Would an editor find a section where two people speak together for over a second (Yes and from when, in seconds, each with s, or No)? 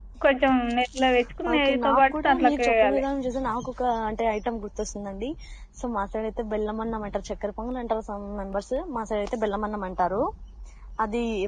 Yes, from 1.5 s